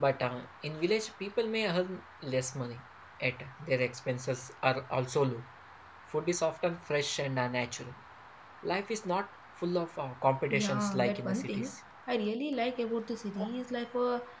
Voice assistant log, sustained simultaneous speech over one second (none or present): present